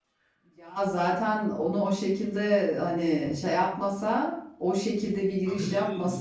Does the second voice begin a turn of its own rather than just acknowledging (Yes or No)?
No